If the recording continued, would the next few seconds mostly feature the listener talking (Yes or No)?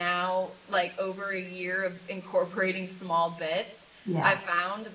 No